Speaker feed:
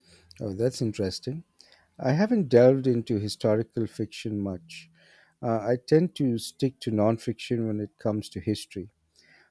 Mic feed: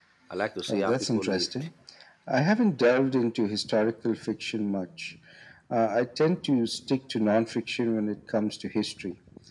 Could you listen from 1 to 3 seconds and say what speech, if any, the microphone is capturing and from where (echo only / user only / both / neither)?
both